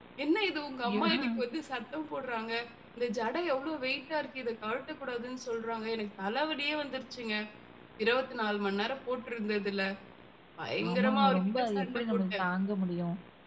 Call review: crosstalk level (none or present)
present